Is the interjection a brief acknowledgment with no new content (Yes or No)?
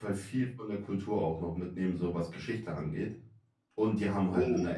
Yes